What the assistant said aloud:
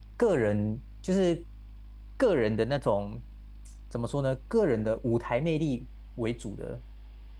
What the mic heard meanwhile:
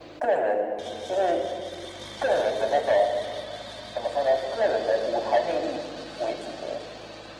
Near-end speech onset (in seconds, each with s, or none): none